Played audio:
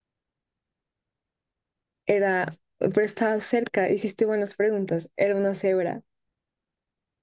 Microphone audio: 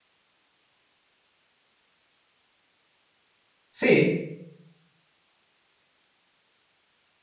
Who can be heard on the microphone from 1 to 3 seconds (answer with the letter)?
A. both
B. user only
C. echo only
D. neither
D